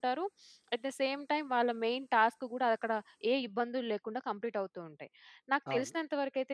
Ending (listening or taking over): listening